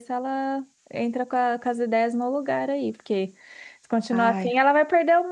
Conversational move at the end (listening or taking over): listening